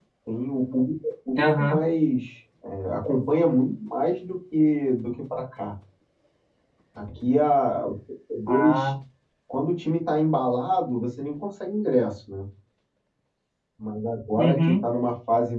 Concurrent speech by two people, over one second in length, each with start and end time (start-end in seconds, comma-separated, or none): none